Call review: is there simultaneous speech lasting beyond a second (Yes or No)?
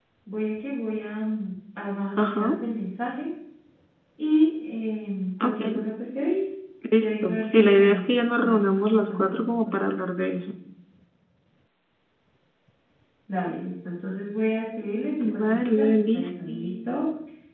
Yes